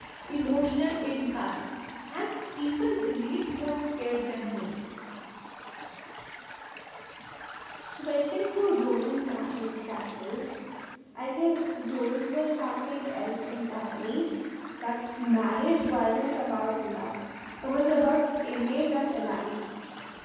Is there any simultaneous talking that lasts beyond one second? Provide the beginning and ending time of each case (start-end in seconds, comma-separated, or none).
none